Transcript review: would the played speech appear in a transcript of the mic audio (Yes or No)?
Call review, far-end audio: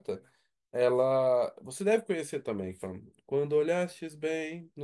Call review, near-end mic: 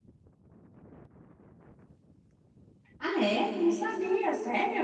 No